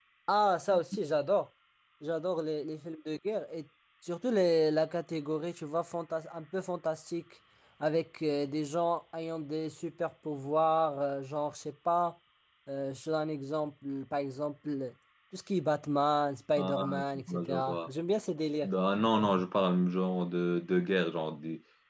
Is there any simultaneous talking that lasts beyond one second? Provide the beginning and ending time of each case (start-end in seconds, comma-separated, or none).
16.6-17.9